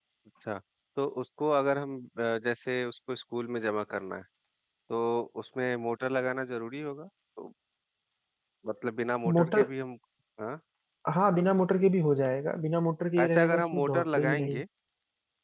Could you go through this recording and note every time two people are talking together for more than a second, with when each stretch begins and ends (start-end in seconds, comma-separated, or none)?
13.2-14.6